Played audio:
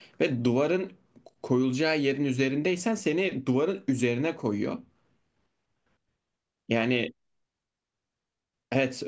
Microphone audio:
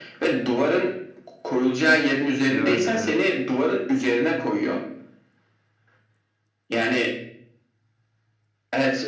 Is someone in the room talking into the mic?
Yes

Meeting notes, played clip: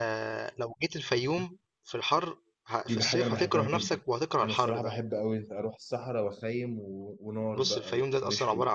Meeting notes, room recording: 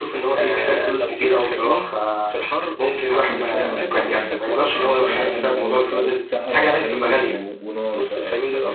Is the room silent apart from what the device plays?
No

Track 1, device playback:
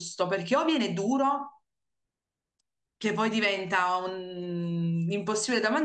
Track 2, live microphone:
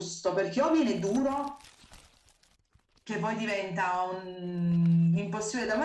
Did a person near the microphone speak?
No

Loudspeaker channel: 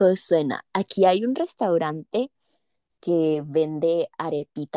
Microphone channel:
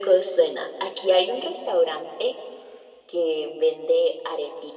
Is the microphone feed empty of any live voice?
Yes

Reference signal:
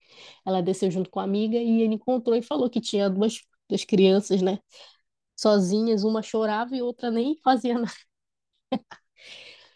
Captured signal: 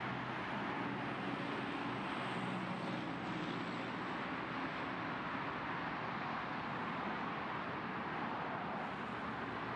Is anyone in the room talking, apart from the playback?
No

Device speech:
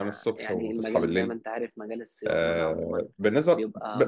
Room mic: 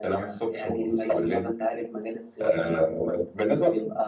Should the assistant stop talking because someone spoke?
No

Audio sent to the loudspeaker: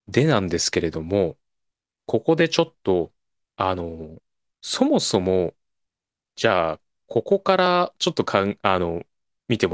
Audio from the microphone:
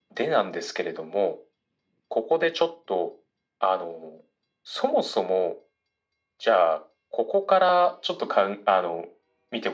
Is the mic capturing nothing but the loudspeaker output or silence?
Yes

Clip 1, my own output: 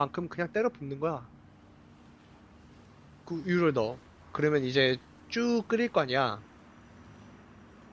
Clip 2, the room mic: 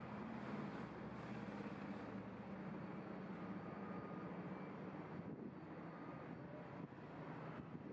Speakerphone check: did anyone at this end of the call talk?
No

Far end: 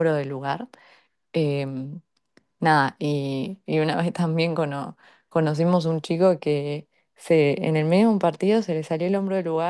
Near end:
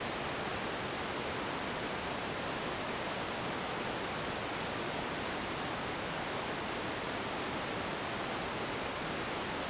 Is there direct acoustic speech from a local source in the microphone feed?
No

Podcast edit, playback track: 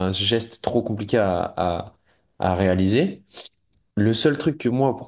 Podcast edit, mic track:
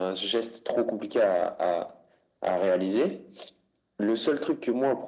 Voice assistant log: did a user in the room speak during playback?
No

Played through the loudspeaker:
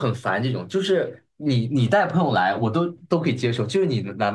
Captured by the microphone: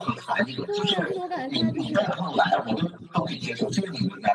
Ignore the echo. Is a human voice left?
Yes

